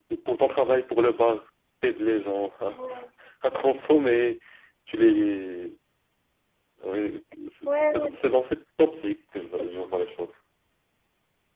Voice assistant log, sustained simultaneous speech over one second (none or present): none